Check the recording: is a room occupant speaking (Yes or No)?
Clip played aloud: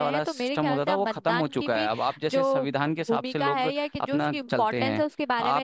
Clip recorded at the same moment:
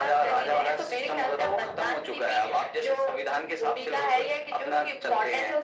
No